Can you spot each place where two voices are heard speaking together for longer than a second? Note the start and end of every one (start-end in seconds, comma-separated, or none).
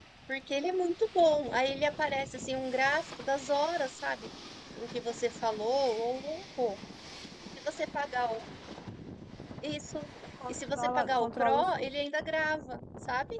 10.5-11.9